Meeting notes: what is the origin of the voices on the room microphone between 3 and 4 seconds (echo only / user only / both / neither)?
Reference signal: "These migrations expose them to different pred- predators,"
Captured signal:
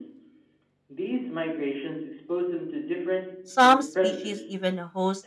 both